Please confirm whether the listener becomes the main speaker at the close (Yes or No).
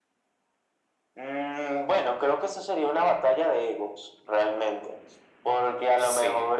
No